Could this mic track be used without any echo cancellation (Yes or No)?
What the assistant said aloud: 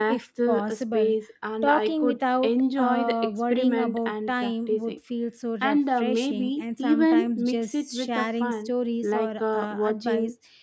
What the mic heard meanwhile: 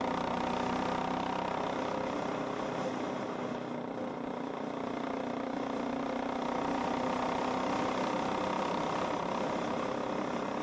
Yes